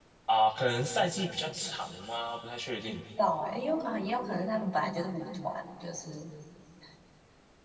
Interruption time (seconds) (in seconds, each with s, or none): none